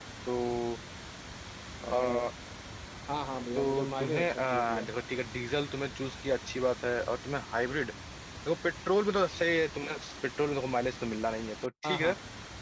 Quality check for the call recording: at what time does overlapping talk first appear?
3.6 s

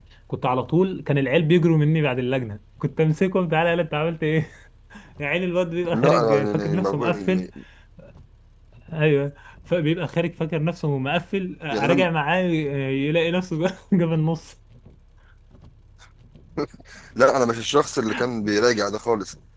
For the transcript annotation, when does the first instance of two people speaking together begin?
5.9 s

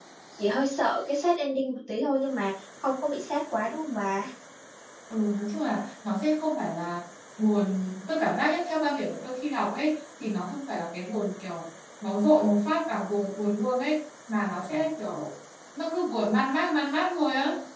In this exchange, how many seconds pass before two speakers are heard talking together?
none

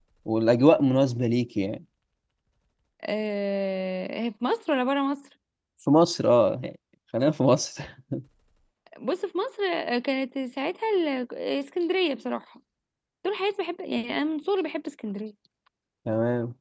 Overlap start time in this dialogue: none

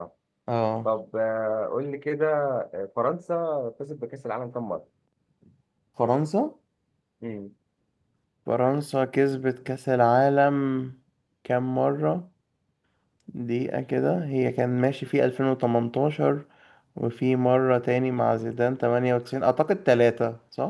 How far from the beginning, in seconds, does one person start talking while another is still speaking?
none

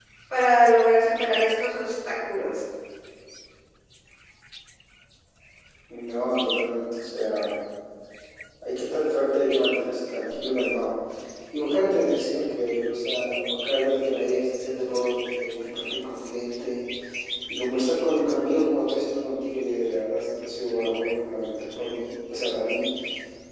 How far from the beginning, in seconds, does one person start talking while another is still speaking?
none

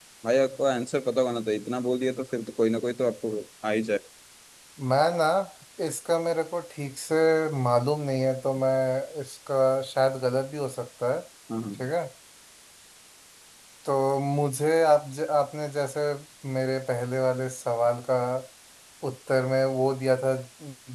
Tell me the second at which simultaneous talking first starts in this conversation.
none

